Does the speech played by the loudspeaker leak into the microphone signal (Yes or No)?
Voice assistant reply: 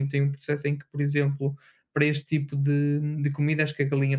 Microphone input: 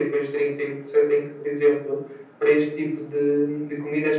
Yes